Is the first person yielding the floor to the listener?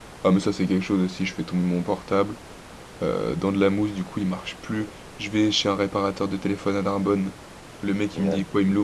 No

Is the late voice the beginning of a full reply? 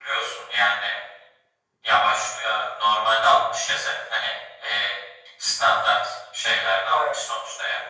No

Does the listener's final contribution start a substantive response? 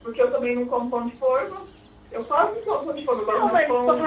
Yes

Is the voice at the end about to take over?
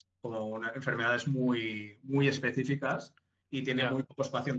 No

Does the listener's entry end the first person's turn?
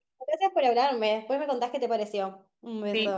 Yes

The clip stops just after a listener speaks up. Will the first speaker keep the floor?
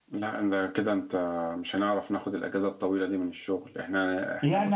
No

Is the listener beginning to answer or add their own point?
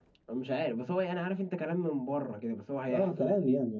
Yes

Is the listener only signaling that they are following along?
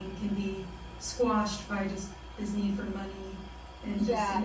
No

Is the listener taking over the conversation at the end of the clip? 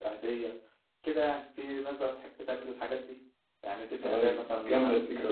Yes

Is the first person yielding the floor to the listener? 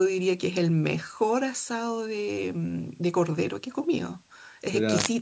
No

